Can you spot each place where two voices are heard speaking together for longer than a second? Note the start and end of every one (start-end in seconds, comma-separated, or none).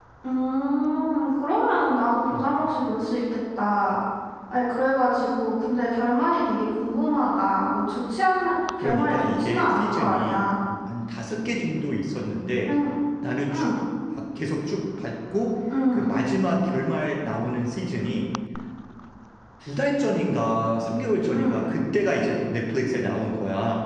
8.8-10.4